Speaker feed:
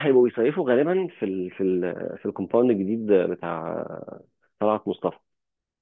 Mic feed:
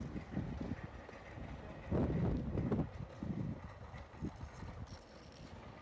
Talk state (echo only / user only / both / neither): neither